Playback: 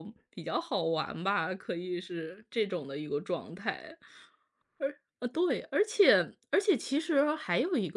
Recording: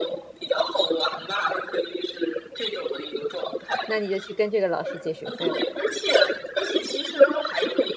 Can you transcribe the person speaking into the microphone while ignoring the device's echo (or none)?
那你就去跟这个老师借学费了，